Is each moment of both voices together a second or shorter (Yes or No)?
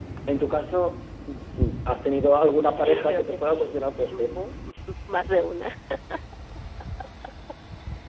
No